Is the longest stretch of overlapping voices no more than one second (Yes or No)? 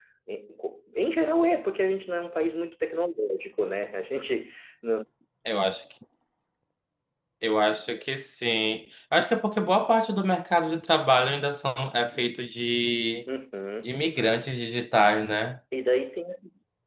Yes